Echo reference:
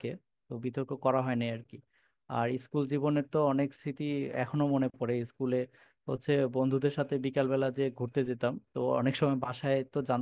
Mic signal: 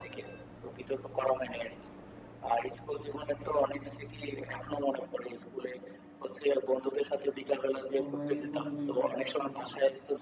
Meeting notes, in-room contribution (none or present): present